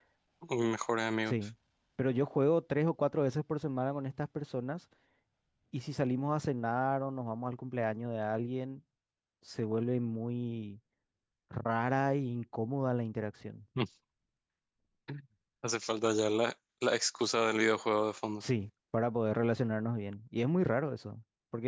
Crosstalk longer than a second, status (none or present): none